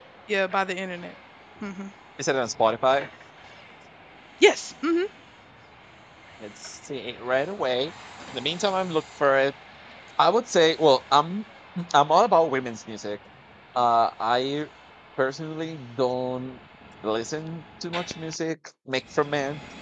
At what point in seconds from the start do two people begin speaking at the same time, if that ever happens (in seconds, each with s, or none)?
none